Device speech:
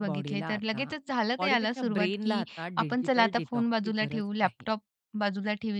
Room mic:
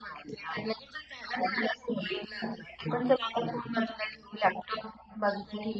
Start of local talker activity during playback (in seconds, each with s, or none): none